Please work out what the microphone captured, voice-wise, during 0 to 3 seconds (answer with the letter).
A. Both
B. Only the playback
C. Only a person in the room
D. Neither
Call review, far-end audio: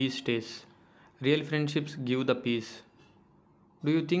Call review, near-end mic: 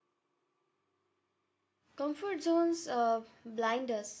C